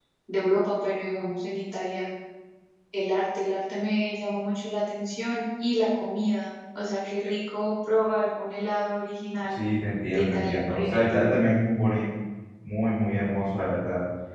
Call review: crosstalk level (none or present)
present